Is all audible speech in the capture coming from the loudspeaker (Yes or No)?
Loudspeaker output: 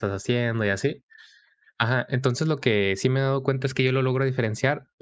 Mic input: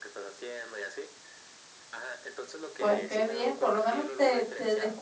No